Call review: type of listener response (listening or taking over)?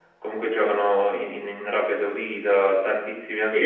taking over